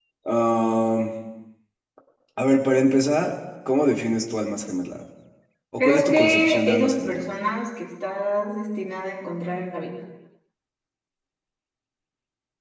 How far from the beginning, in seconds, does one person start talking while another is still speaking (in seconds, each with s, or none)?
5.8 s